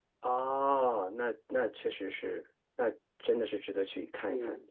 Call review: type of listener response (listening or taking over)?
taking over